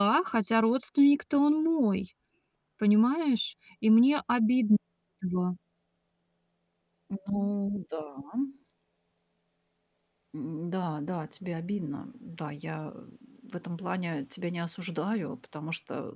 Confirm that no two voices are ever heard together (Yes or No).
Yes